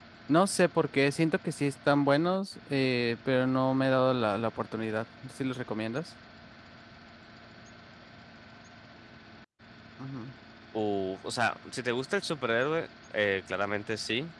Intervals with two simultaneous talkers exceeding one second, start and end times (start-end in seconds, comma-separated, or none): none